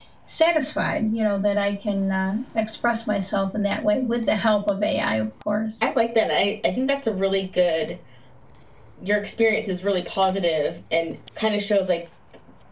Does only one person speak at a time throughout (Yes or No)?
Yes